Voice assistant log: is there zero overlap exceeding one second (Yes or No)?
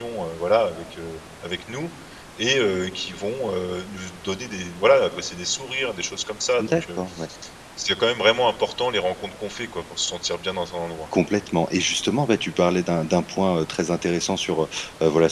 Yes